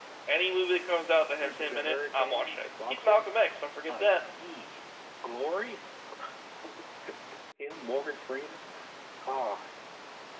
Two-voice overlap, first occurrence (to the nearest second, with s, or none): 1 s